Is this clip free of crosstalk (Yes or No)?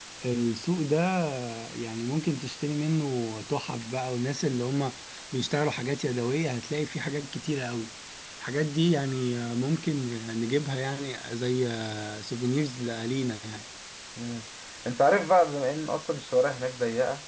Yes